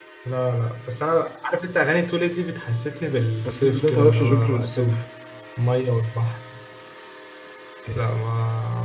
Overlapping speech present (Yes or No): Yes